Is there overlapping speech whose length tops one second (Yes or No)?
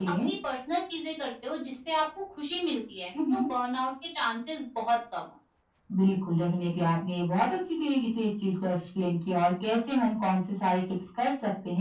No